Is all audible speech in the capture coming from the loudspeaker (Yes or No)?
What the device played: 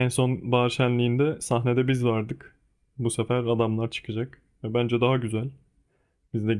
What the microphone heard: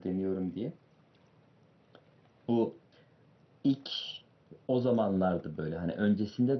No